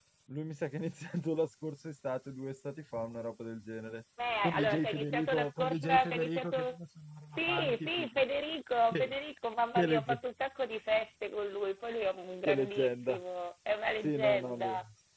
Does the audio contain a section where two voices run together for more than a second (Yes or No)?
Yes